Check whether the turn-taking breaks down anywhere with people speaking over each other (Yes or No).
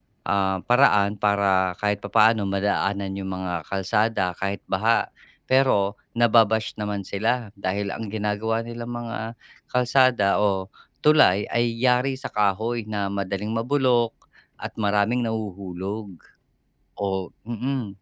No